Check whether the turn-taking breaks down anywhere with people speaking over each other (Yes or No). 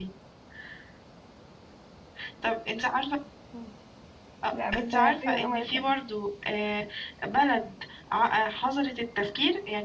Yes